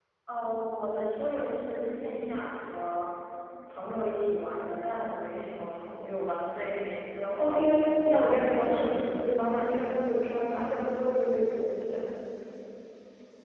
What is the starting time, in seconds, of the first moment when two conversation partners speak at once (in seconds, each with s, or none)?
7.4 s